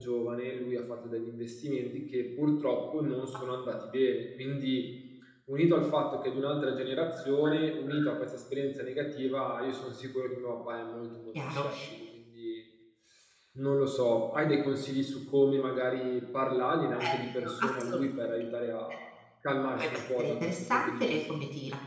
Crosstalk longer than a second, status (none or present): present